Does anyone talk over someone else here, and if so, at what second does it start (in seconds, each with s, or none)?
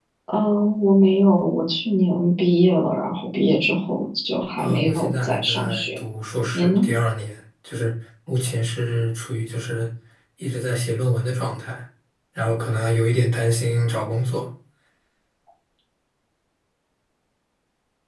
4.6 s